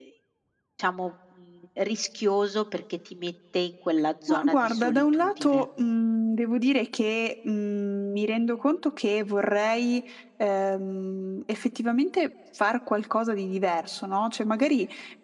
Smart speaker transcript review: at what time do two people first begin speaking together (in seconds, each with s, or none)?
4.3 s